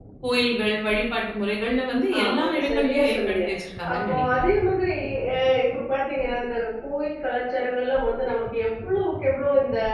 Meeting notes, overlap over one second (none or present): present